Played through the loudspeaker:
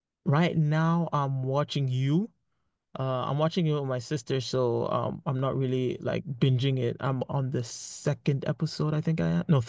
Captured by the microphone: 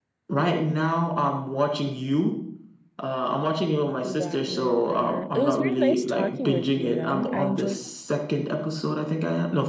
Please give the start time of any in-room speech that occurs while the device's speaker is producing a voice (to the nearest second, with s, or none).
4 s